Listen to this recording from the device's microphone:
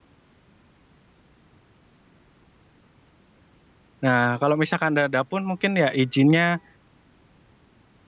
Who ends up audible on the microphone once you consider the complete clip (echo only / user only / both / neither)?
user only